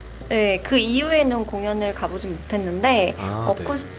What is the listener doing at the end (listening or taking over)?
listening